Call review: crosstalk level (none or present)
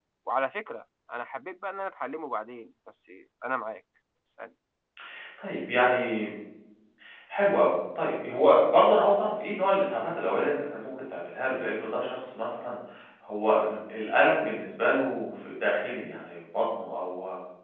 none